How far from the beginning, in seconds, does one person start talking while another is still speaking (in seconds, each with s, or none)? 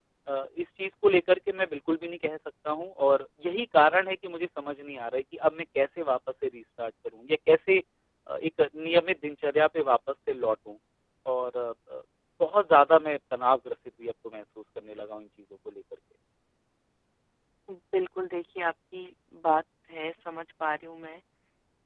none